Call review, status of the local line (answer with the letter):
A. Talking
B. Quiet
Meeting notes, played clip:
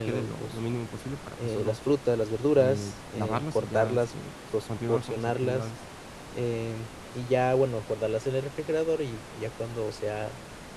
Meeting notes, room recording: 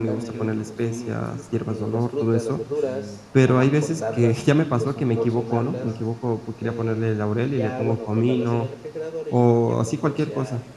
A